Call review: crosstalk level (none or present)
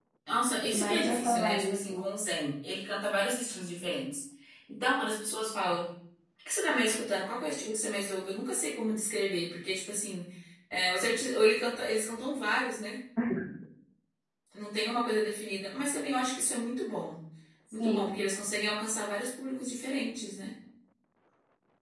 present